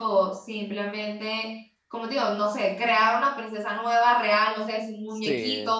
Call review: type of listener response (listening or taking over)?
taking over